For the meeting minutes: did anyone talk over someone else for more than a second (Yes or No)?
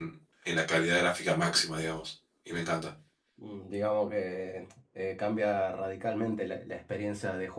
No